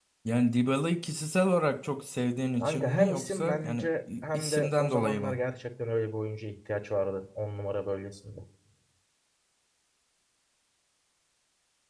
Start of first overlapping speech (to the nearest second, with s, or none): 3 s